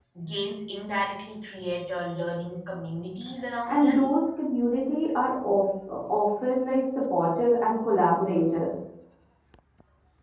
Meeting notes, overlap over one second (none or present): none